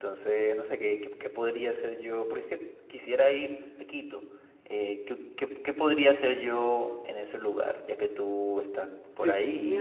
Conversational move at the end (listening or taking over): taking over